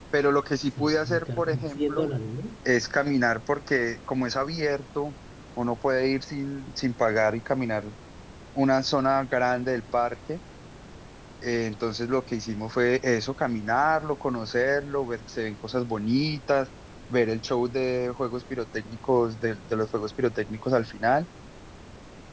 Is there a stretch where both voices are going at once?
Yes, from 0.8 s

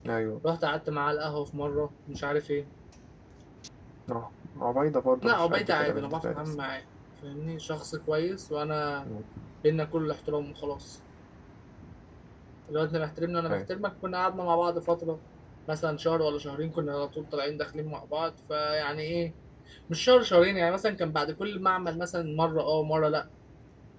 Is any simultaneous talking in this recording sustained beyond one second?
Yes, from 5.2 s

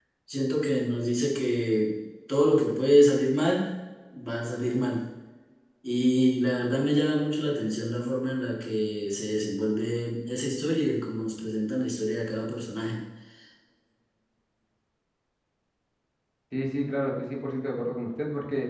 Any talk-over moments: No

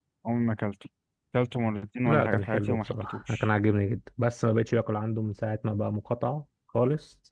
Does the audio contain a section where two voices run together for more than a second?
Yes, from 2.0 s

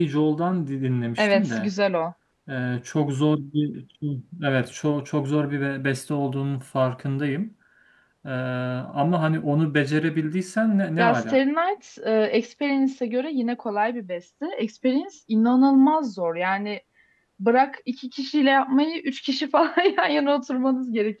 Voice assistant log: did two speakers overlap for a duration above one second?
No

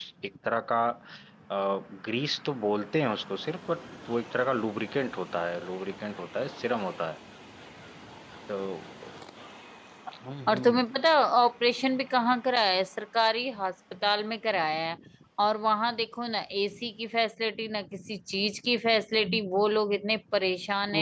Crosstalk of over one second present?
No

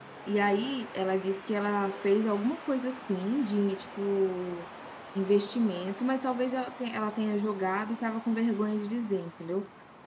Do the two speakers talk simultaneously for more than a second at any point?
No

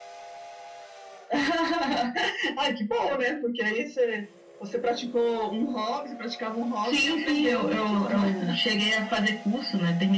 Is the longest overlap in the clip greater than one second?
Yes, from 6.8 s

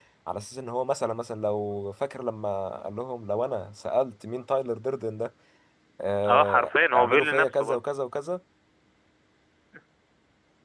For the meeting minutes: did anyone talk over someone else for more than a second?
Yes, from 6.3 s

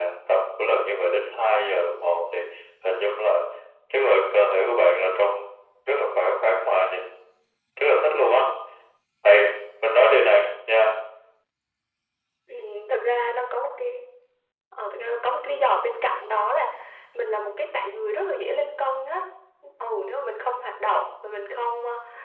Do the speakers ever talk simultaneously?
No

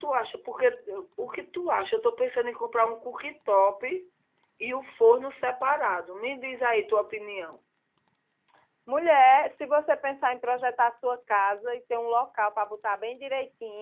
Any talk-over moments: No

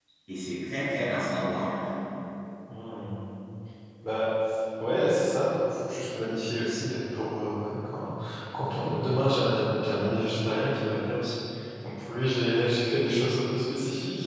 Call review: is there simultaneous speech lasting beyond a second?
No

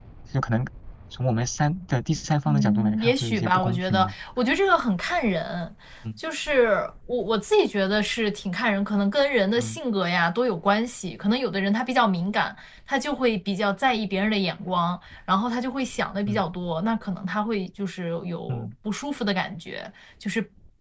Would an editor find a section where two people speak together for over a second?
Yes, from 2.5 s

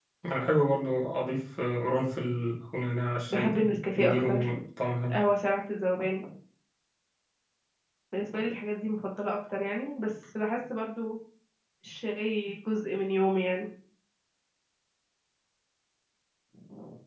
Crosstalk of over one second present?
Yes, from 3.3 s

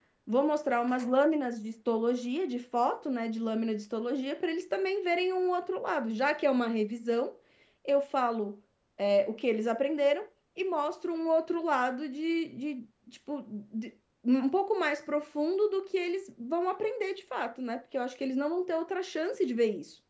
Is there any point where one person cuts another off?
No

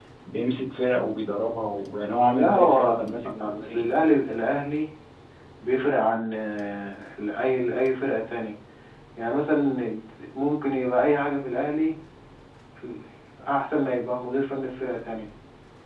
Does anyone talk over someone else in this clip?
Yes, from 2.3 s

